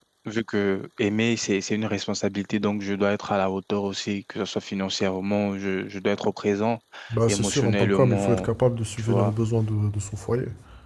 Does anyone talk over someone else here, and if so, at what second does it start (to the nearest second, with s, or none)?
7 s